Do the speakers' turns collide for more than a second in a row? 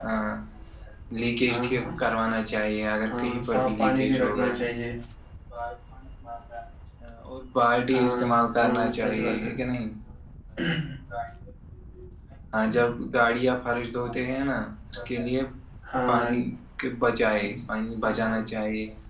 Yes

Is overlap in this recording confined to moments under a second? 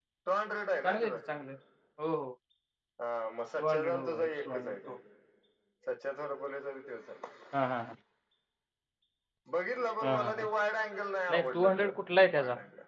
No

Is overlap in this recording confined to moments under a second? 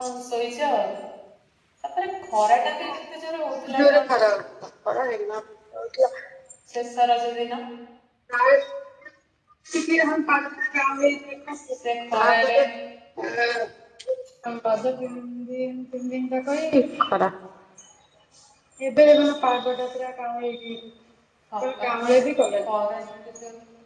Yes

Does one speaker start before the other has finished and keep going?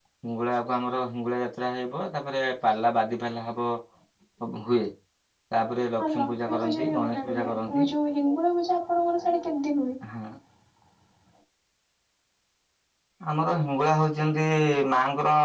Yes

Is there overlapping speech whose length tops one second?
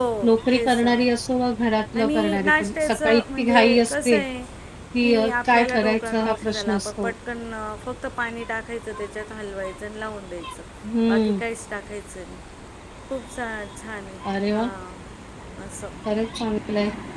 Yes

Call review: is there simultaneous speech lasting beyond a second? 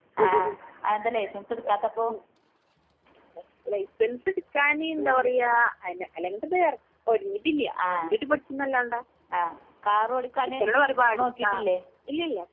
No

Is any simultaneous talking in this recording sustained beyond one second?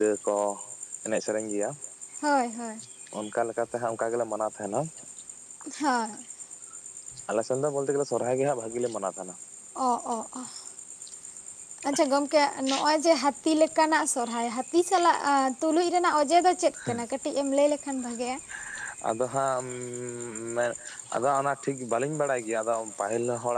No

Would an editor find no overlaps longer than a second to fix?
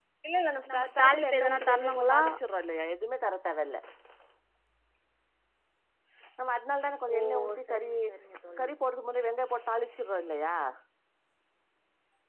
No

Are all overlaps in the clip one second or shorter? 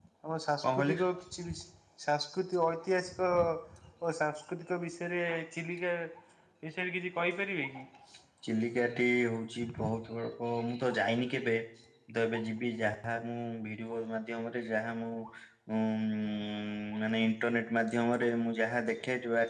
Yes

